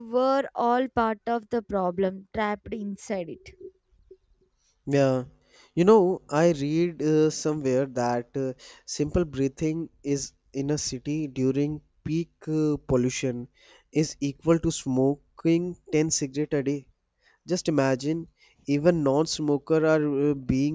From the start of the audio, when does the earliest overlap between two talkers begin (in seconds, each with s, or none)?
none